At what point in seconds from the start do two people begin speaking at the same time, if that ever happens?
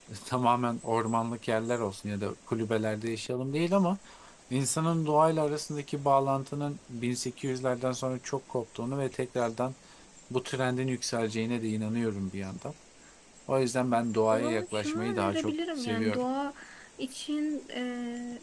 14.3 s

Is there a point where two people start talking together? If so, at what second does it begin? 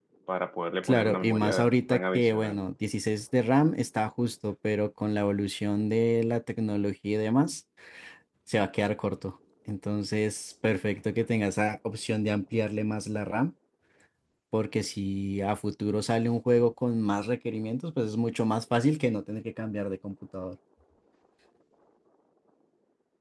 0.8 s

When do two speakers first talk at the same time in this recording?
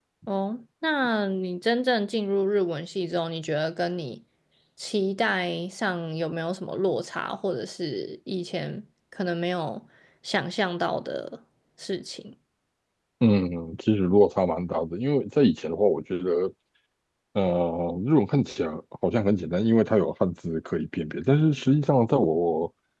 none

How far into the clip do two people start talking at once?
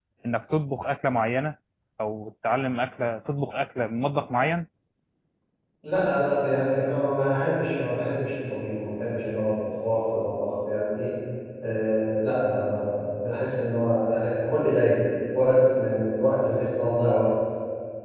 none

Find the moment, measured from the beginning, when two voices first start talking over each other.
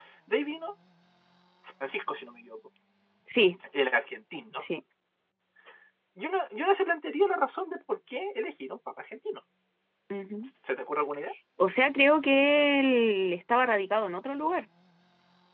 none

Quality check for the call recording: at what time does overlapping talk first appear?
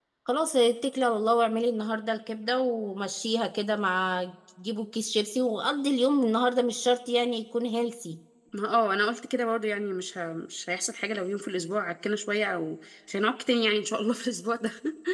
none

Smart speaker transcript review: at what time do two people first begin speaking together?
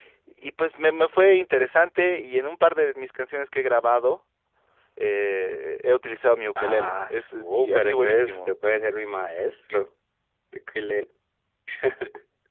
6.6 s

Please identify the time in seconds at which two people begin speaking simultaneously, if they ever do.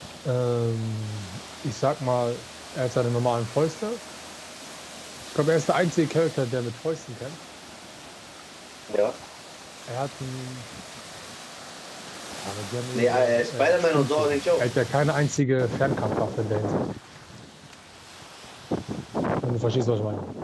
13.0 s

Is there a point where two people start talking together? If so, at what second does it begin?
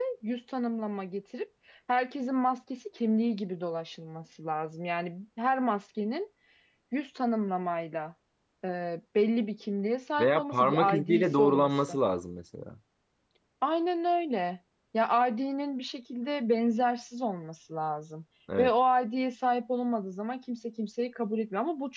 10.2 s

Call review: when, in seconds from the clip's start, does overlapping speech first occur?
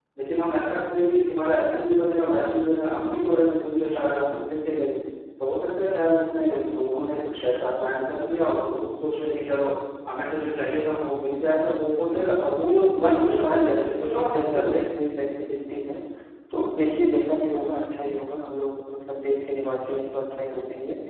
13.0 s

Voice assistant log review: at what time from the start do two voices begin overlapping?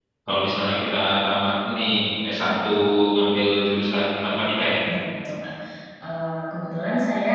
none

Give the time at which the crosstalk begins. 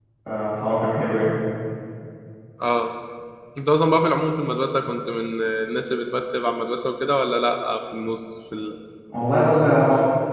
none

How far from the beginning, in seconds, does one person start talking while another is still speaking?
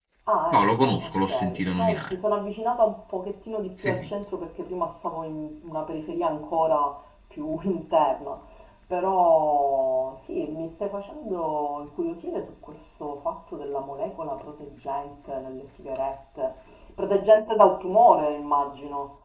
0.5 s

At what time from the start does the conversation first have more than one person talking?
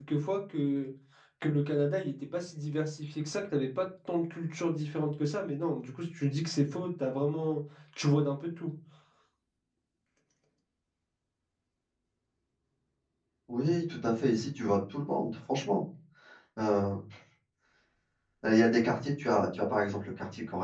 none

